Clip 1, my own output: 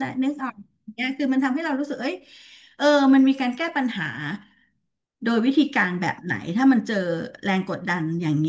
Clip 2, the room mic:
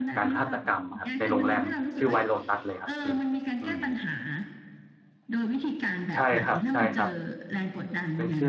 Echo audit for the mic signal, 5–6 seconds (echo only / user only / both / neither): echo only